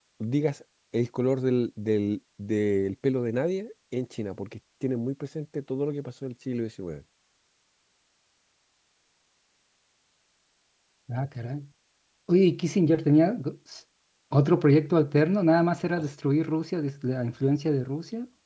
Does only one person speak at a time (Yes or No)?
Yes